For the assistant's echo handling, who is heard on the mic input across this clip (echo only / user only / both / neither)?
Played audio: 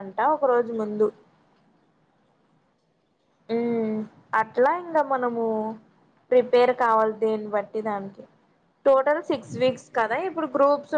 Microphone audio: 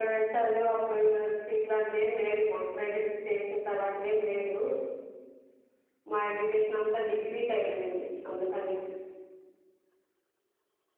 user only